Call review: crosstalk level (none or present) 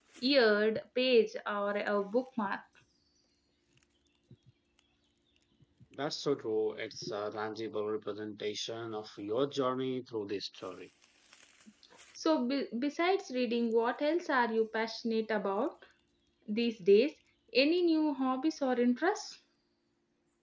none